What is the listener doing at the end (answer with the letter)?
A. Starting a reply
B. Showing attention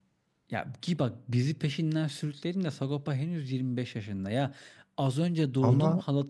B